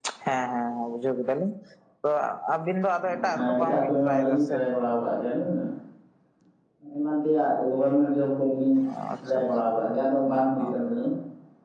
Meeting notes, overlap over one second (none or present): present